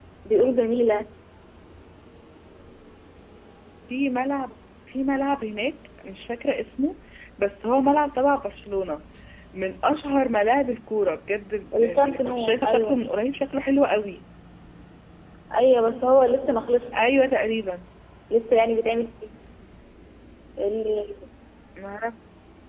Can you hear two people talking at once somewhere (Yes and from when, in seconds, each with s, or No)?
Yes, from 11.7 s